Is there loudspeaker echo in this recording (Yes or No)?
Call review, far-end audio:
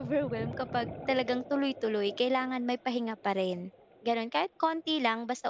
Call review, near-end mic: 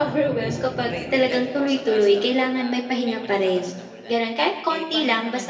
Yes